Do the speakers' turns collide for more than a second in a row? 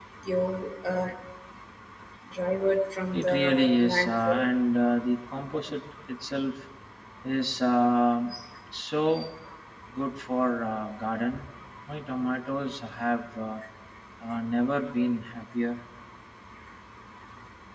Yes, from 3.1 s

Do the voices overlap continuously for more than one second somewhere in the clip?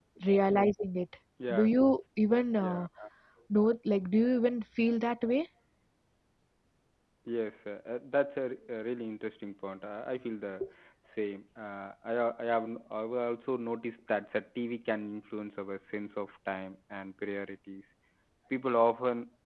No

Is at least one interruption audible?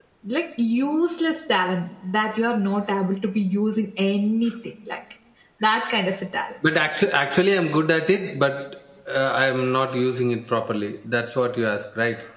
No

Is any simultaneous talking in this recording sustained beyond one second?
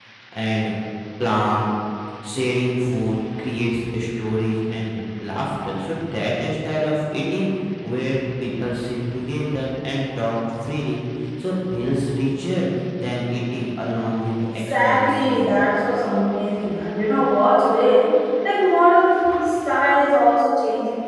Yes, from 14.4 s

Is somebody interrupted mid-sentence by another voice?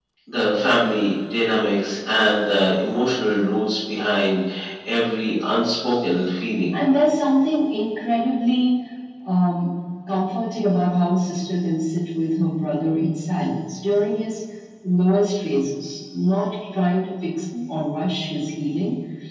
No

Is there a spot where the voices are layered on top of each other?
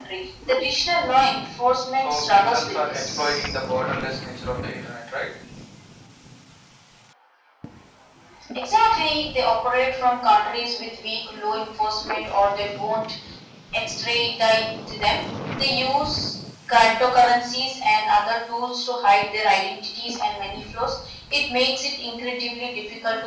Yes, from 2.0 s

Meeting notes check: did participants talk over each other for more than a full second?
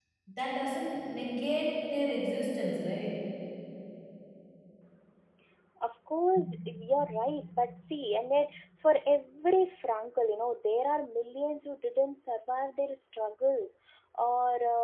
No

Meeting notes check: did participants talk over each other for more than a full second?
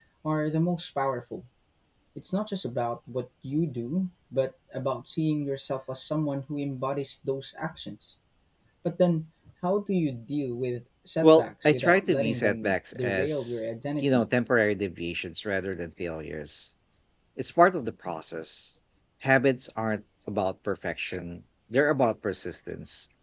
Yes, from 11.2 s

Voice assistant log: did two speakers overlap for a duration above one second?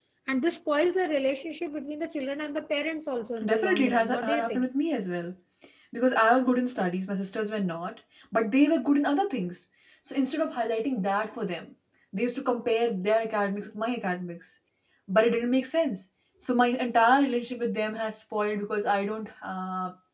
Yes, from 3.4 s

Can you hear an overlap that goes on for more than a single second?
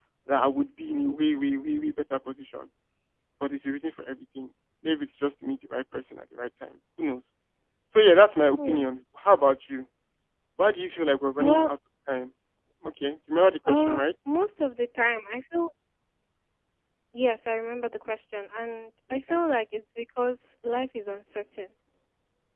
No

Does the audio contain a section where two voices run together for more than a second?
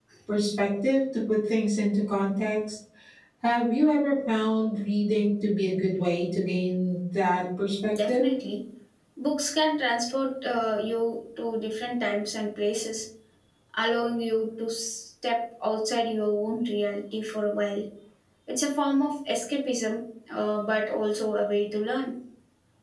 No

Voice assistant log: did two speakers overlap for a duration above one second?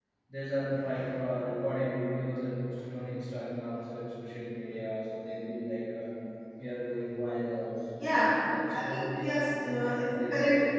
Yes, from 8.0 s

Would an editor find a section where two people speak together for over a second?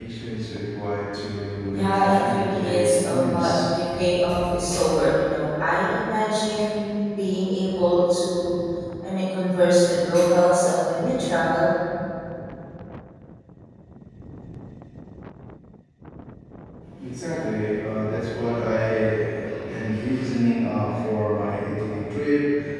Yes, from 1.7 s

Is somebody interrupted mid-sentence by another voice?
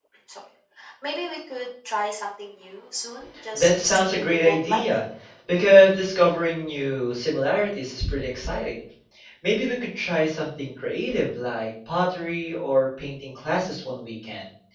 Yes, from 3.3 s

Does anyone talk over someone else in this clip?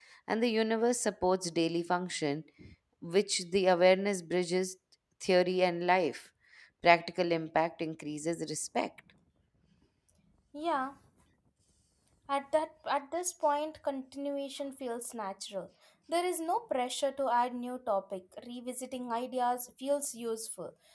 No

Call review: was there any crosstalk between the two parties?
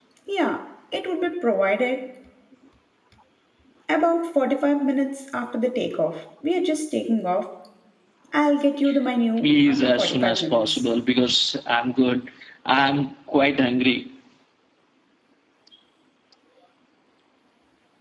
Yes, from 9.4 s

